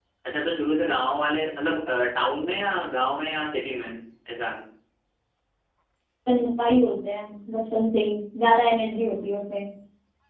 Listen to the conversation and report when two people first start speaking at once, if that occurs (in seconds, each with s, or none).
none